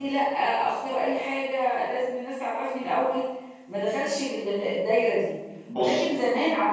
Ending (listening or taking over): listening